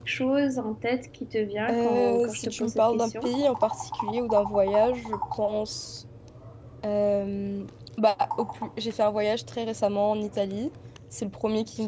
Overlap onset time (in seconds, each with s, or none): 1.7 s